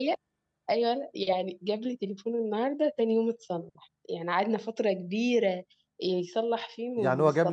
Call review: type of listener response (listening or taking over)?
taking over